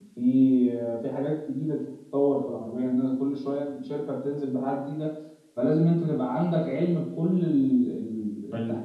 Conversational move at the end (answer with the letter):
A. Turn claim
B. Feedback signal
A